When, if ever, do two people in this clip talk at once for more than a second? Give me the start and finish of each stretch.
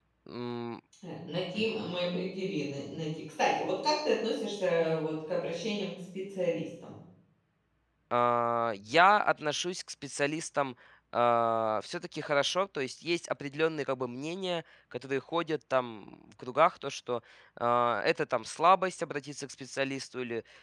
none

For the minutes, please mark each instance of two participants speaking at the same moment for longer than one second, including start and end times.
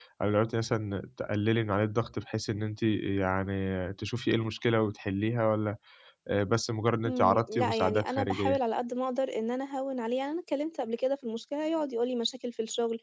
7.1-8.5

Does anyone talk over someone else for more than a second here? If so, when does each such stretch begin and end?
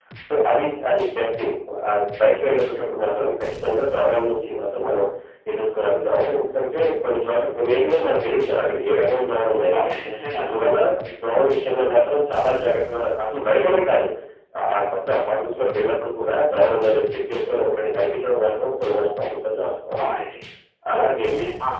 none

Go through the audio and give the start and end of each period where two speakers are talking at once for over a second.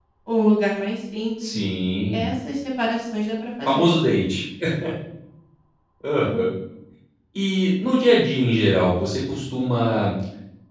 none

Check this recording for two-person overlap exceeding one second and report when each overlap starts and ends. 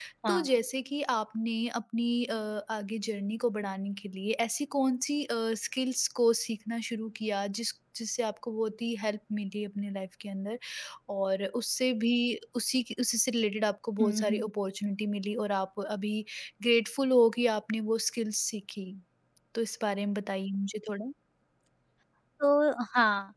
none

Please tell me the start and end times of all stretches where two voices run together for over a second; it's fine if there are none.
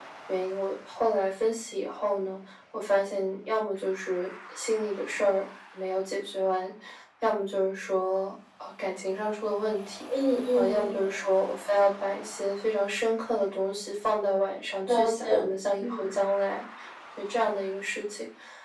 none

